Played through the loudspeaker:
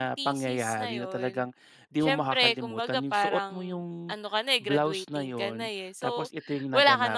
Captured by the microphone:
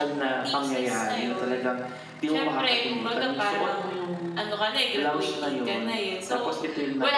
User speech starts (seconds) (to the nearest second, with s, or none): none